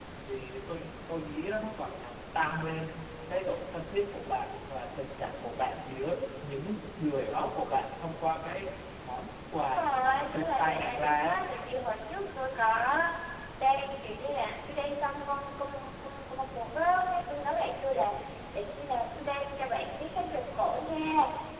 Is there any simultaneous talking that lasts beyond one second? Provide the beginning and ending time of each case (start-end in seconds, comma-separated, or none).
9.7-11.4